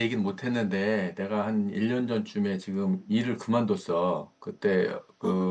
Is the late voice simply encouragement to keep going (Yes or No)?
Yes